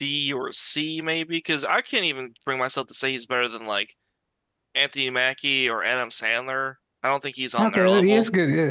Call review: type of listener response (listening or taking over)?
taking over